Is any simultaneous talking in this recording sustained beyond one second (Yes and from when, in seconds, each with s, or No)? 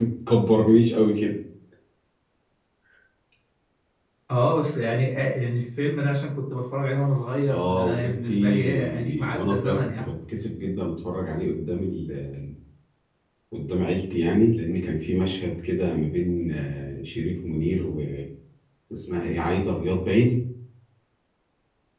Yes, from 7.5 s